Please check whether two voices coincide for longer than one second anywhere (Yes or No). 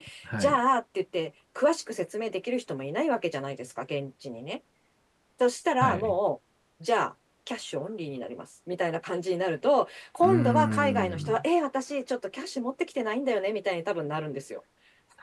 Yes